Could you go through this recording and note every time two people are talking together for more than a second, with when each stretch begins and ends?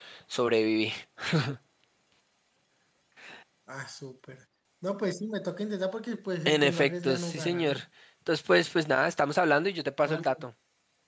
6.5-7.8

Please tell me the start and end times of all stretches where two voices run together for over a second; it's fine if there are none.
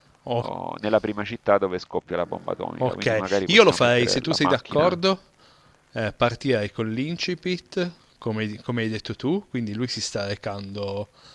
2.8-5.0

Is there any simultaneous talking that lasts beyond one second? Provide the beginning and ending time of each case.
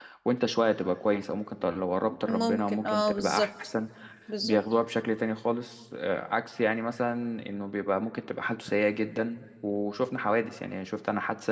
2.2-3.5

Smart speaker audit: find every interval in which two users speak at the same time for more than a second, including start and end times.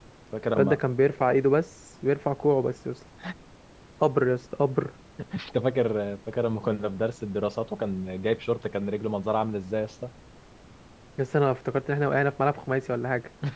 none

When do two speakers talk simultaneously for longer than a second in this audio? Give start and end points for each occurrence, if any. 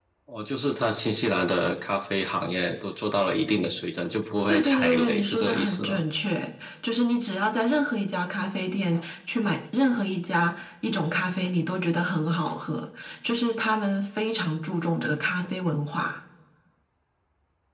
4.5-6.0

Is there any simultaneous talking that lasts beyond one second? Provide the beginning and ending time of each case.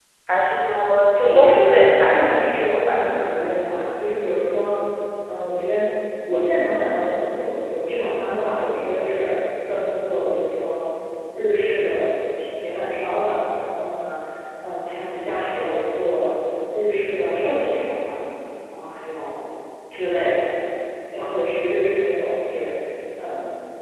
1.2-3.4

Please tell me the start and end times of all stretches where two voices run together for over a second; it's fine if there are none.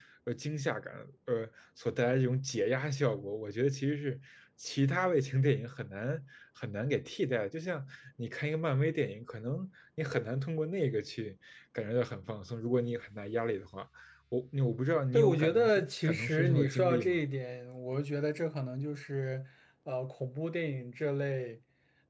15.1-17.2

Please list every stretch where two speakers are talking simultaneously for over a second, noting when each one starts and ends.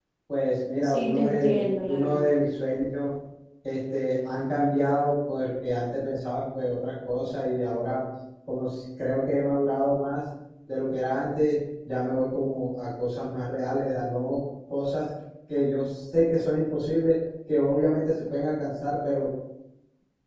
0.8-2.3

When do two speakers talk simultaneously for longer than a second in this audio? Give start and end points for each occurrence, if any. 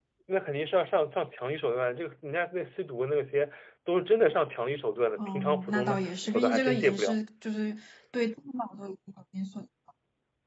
5.2-7.2

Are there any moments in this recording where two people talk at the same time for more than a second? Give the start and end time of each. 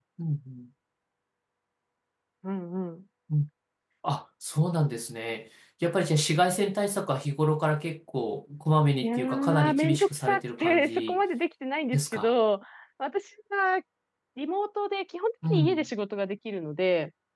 9.0-11.2

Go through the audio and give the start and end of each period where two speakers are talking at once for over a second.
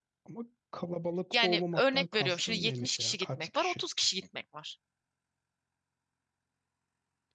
1.3-3.8

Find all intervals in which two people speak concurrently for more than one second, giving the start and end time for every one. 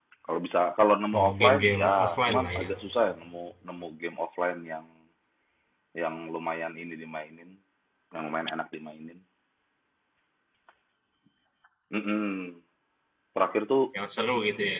1.2-2.7

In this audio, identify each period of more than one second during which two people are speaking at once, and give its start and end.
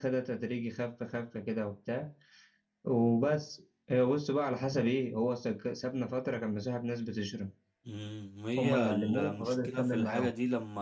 8.6-10.3

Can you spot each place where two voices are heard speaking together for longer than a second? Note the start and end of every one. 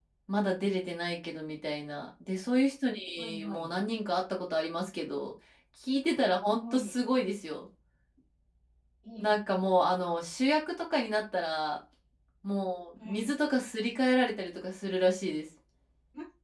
none

